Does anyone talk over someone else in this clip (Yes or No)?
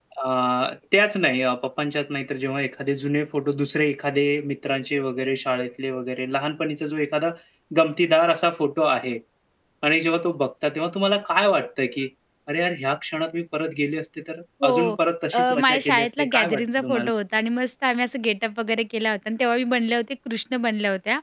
Yes